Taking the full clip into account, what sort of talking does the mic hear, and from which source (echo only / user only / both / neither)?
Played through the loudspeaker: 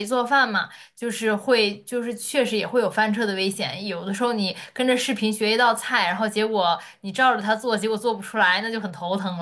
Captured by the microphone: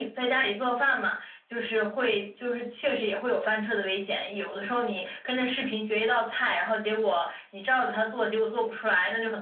echo only